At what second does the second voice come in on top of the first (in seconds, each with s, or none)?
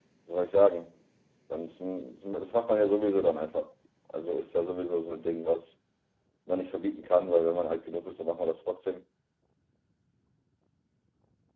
none